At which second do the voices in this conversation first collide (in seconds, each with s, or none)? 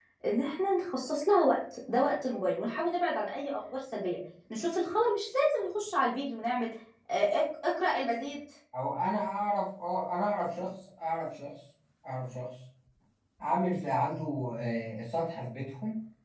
none